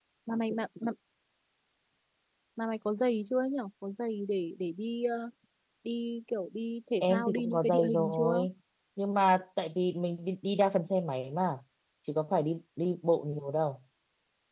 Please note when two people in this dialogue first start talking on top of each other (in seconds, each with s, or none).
7.0 s